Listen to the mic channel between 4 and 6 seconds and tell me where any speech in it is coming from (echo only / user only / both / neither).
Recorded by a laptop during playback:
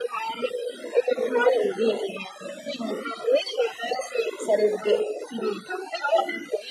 echo only